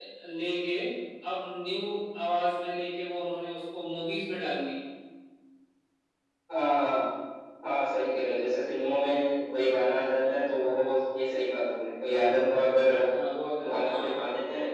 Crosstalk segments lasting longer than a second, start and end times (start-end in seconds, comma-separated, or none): none